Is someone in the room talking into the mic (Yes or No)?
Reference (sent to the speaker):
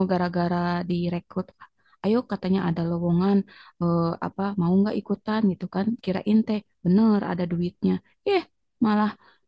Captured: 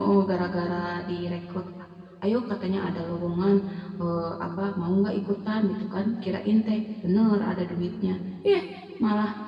No